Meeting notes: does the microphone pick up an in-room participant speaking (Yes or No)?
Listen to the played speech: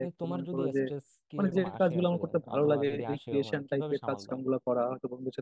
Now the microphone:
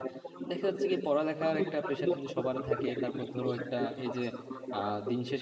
Yes